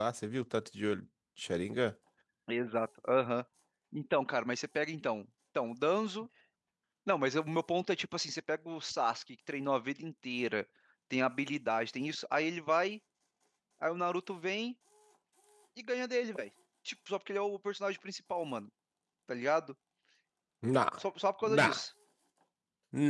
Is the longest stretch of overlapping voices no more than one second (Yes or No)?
Yes